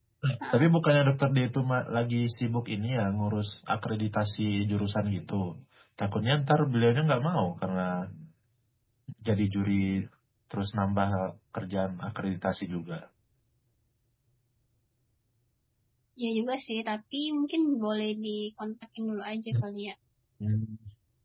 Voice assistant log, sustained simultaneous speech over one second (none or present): none